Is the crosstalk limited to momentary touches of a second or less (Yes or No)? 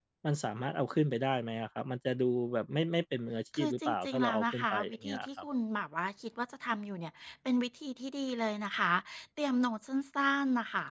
No